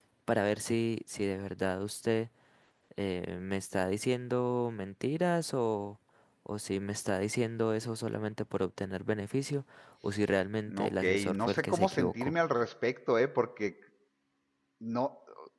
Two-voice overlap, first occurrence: 10.7 s

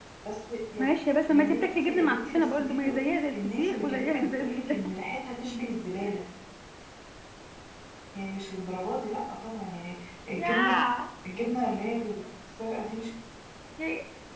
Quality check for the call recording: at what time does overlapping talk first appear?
1.3 s

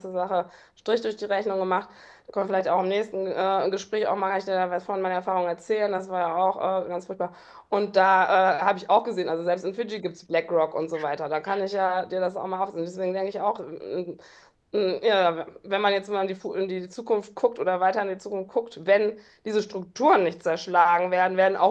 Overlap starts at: none

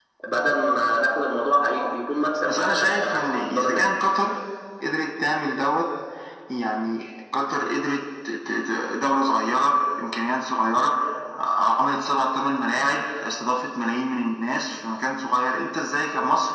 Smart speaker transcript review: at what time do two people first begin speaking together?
2.5 s

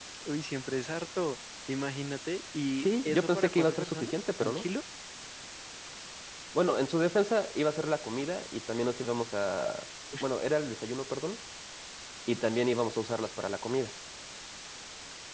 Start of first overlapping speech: 2.8 s

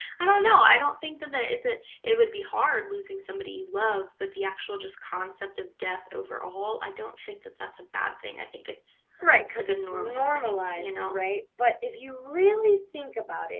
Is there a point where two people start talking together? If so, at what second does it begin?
9.6 s

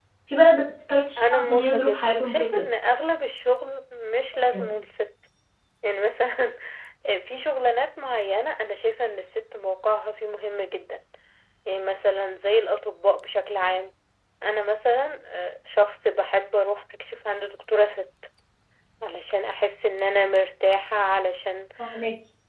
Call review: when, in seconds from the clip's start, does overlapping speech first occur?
1.2 s

